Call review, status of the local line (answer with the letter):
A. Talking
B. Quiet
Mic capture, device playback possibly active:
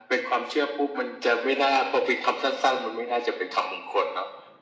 B